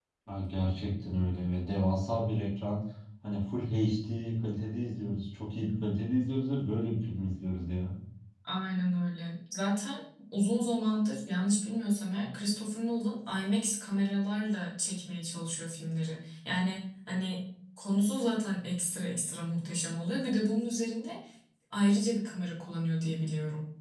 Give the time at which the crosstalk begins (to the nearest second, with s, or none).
none